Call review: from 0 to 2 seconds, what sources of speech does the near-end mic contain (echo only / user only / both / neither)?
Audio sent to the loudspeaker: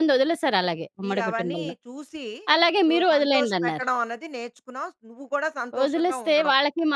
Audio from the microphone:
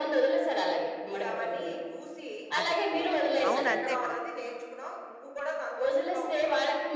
echo only